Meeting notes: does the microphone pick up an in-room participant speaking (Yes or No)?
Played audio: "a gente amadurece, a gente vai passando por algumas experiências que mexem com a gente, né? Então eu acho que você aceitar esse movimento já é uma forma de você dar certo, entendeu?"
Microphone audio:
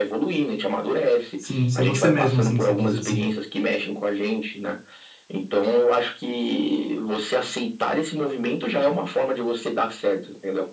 Yes